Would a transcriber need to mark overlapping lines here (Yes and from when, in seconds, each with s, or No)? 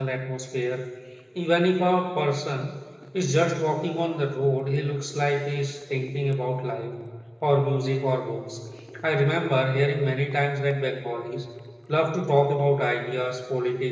No